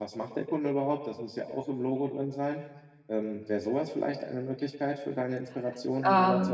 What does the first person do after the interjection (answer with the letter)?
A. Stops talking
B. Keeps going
A